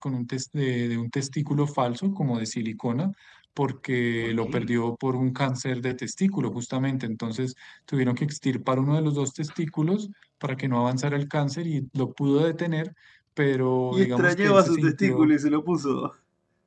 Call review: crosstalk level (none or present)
present